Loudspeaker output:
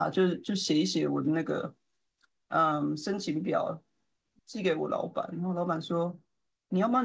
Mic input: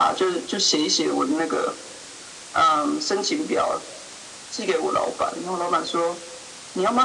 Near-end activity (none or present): none